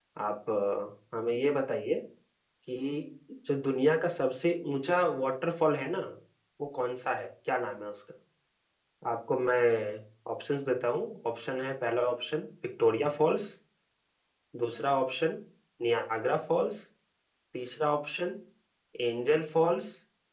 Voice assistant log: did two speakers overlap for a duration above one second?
No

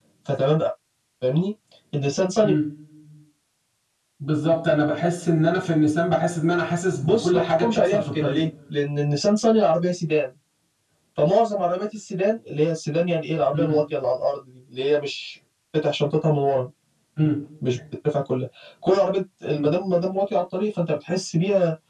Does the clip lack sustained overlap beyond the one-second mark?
No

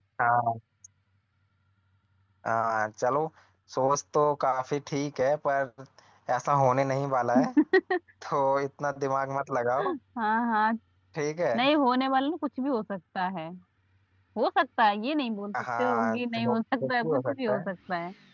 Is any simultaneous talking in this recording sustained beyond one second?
Yes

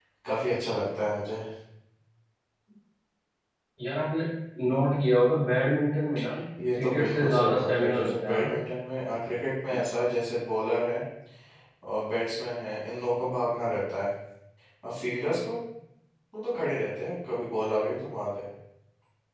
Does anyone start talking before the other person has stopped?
Yes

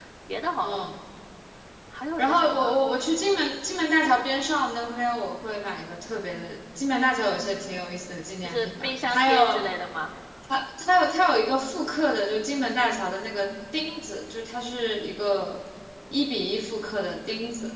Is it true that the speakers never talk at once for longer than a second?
No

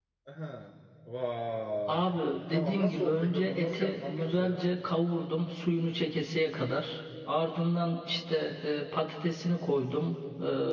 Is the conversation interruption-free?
No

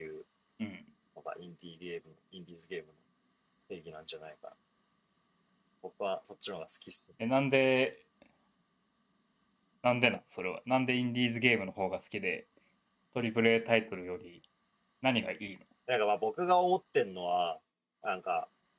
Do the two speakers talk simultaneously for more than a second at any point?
No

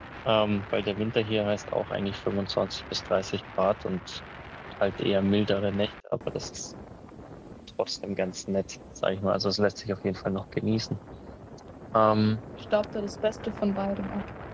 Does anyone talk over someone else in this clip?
No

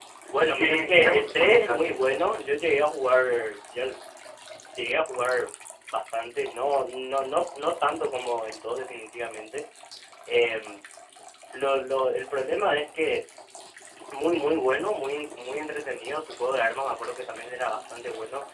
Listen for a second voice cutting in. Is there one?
Yes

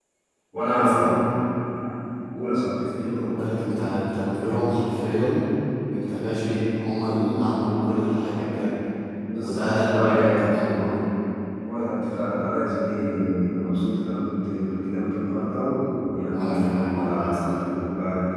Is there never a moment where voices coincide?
No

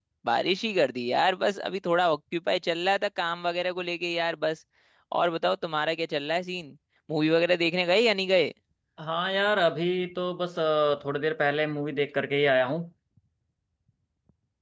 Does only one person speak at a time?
Yes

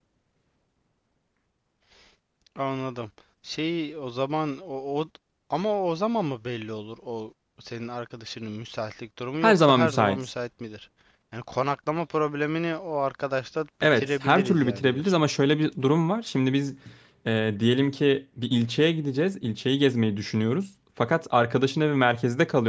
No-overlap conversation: No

